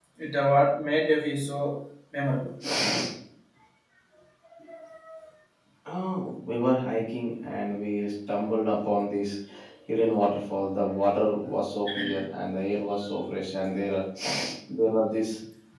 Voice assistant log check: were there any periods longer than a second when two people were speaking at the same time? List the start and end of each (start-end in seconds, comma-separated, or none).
none